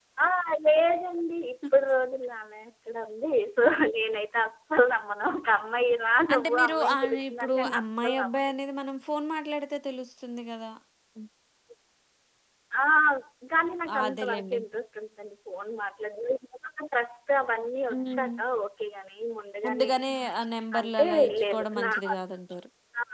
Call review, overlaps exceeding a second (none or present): present